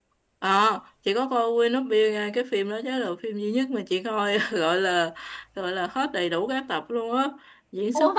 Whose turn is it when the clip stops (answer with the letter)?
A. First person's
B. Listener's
A